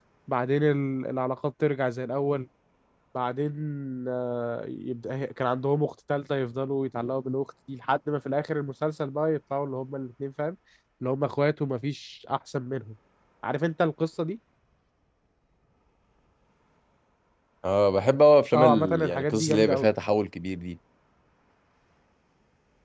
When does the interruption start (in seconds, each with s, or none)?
18.5 s